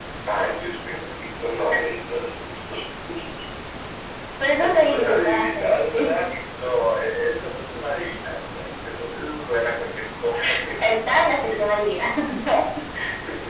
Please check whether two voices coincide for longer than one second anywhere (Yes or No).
Yes